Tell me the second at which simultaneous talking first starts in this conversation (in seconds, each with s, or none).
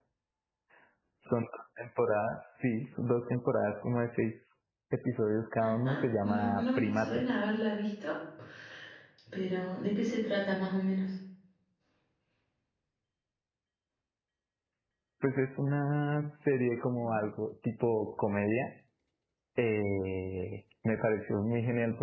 5.6 s